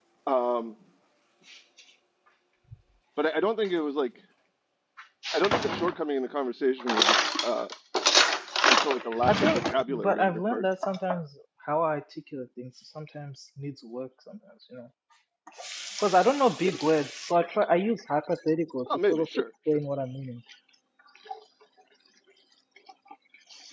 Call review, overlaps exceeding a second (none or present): present